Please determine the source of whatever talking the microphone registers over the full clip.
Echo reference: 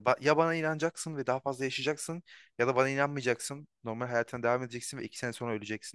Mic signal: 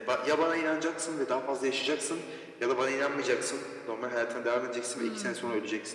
both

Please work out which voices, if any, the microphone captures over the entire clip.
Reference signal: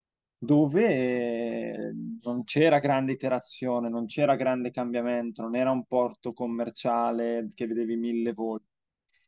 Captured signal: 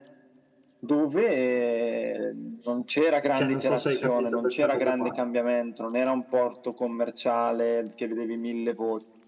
both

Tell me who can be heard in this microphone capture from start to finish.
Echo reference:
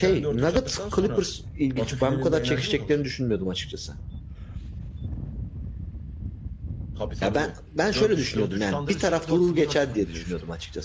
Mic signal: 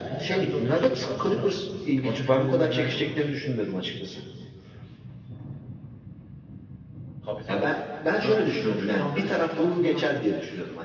echo only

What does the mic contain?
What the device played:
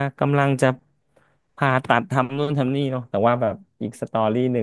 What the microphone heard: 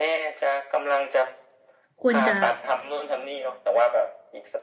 both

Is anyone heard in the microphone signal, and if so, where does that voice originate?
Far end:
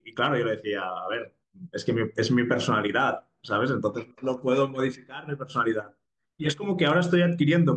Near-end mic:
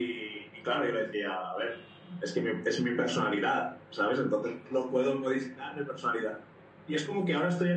echo only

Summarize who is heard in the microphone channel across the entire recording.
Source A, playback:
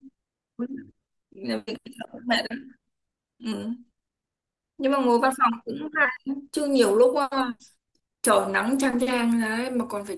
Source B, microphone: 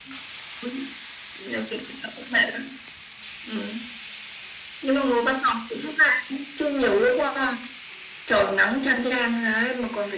echo only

